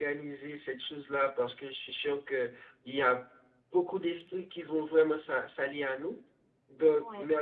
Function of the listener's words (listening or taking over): listening